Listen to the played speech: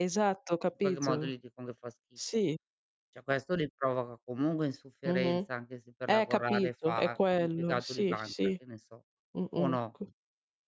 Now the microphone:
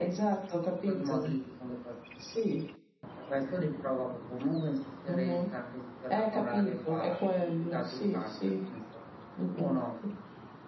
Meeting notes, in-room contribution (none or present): none